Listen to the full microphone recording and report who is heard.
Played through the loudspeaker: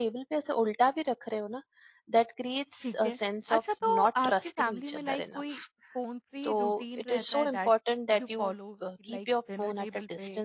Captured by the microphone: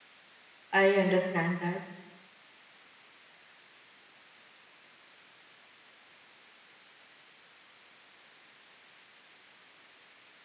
user only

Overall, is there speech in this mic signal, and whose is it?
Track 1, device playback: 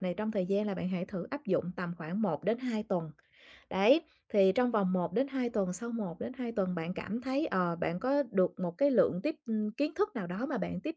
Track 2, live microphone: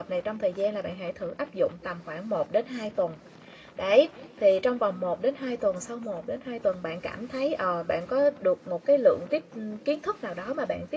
echo only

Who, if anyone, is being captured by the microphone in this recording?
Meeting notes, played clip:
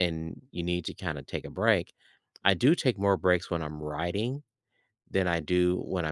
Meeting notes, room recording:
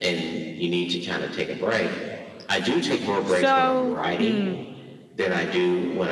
both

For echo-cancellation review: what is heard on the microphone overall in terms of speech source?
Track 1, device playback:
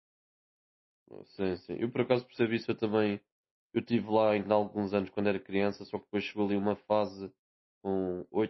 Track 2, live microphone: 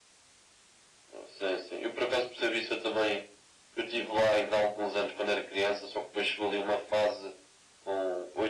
echo only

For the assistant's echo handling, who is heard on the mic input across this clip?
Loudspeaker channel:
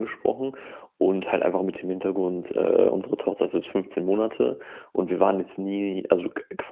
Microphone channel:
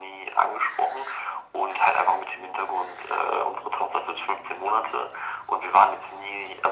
echo only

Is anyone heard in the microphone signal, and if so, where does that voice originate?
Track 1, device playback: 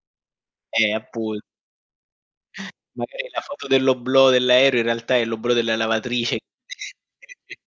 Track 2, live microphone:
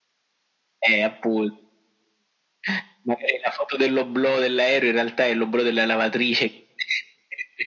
echo only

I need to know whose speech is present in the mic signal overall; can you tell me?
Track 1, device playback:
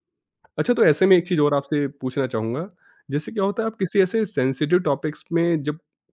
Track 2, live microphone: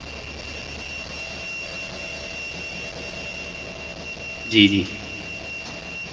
user only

